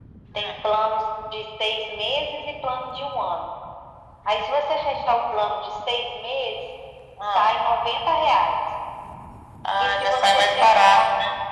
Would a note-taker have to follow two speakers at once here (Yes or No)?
Yes